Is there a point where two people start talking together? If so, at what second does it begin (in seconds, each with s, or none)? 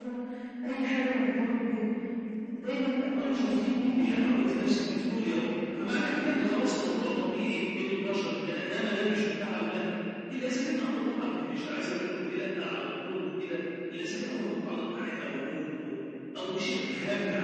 3.3 s